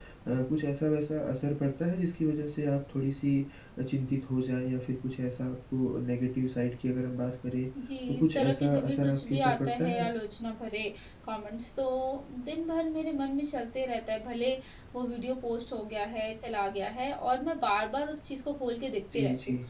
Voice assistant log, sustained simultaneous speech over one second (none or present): present